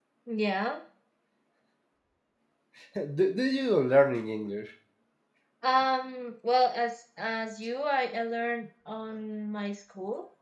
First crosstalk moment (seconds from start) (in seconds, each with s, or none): none